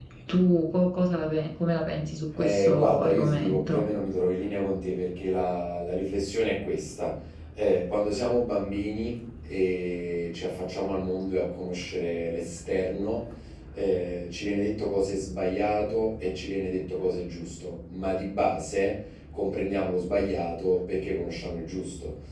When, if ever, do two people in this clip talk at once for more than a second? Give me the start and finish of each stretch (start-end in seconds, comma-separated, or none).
2.4-3.9